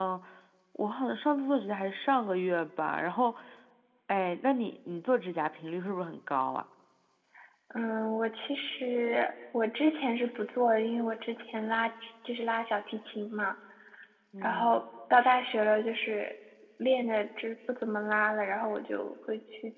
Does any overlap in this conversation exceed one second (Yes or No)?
No